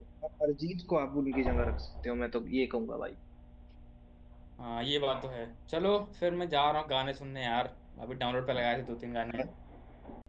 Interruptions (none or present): none